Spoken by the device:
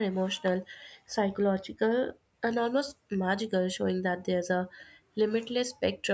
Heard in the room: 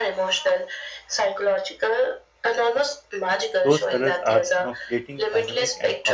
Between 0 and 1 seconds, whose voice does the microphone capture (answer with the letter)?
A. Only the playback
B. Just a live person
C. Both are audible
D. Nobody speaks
A